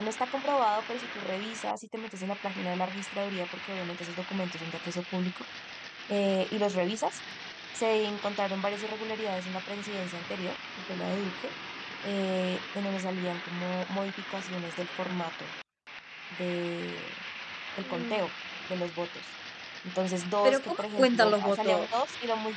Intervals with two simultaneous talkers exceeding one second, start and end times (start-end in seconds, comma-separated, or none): 20.4-21.9